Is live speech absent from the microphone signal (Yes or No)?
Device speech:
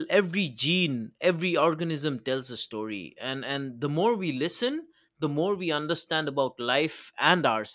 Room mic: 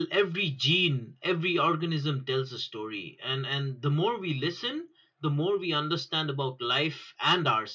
Yes